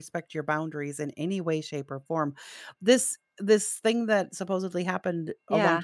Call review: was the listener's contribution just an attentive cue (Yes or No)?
Yes